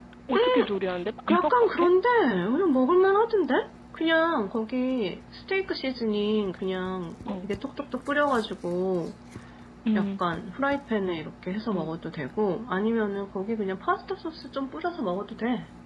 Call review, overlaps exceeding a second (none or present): none